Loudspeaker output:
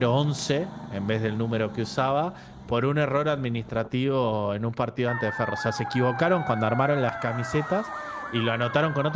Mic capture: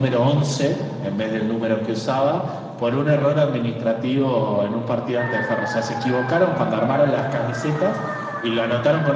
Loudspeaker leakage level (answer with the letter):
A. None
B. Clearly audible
B